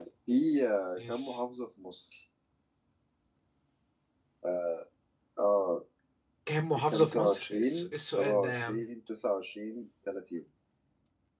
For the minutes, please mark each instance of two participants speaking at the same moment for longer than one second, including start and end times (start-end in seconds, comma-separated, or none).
6.8-8.8